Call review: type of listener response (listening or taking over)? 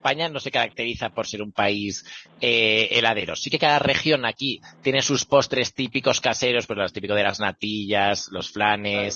listening